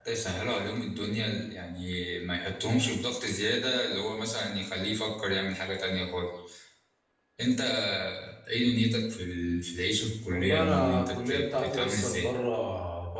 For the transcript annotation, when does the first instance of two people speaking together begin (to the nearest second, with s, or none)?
10 s